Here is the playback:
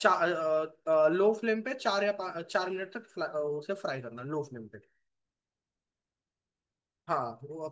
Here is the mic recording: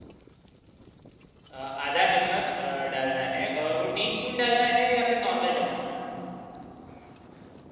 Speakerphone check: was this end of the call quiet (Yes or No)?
No